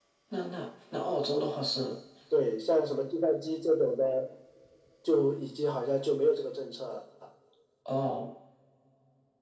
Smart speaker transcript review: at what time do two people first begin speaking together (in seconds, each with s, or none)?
none